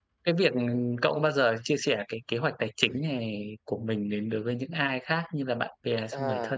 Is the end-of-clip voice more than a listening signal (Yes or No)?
Yes